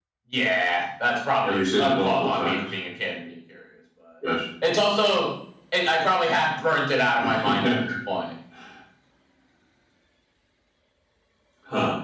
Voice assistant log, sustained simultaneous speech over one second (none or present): present